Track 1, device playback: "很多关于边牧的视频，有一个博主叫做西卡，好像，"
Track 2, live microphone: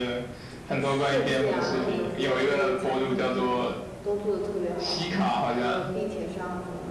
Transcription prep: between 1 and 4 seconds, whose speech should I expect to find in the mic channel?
both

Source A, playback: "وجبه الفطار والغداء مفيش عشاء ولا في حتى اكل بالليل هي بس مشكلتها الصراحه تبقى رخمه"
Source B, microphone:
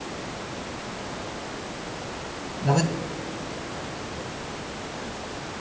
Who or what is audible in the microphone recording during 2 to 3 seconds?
user only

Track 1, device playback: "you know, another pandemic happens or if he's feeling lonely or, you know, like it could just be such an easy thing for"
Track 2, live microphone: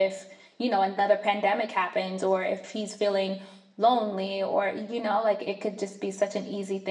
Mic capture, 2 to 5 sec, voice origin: echo only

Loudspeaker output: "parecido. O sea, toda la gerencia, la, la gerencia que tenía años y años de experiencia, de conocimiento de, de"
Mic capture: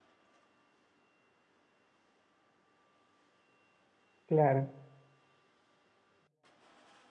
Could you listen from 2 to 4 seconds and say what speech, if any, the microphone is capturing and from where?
neither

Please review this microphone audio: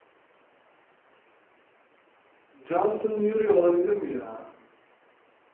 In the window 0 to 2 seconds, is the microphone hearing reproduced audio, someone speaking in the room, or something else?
neither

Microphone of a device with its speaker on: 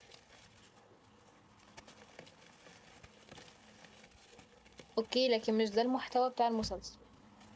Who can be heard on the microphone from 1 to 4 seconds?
neither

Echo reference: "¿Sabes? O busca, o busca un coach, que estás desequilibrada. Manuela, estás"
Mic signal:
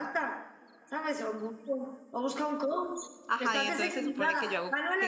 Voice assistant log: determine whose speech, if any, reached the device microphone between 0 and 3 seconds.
echo only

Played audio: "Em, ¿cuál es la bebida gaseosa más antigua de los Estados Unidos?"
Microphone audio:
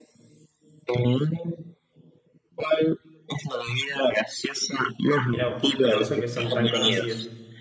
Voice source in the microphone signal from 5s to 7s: both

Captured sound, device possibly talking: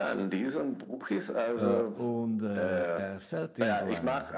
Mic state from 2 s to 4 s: both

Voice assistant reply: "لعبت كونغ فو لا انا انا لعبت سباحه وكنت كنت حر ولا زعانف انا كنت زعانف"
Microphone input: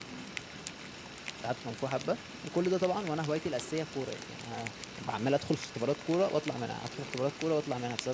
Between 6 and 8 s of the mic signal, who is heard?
user only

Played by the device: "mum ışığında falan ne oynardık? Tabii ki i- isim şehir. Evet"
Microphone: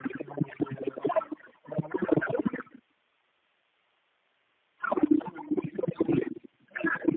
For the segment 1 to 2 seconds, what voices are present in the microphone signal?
echo only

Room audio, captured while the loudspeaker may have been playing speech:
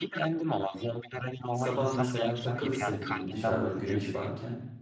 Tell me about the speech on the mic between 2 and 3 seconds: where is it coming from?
both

